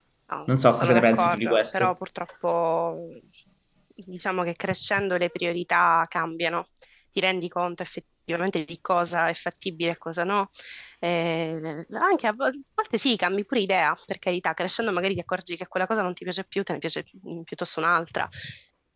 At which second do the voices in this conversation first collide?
0.7 s

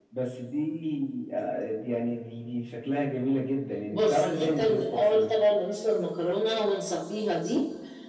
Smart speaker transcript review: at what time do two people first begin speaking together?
3.9 s

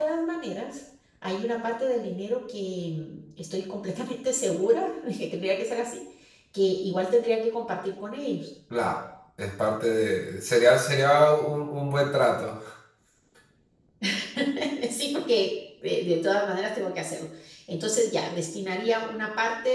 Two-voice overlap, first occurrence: none

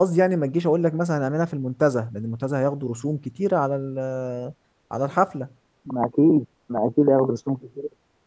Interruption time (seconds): none

